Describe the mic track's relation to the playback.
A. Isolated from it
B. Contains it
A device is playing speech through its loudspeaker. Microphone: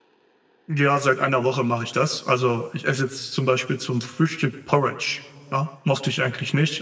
A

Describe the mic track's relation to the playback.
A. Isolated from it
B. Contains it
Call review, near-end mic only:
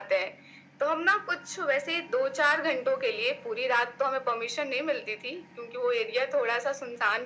B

